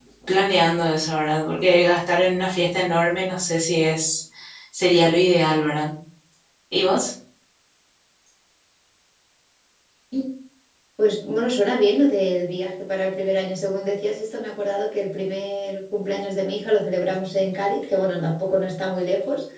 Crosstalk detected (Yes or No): No